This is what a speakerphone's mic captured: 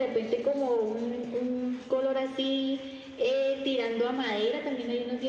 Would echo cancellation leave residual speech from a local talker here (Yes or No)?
No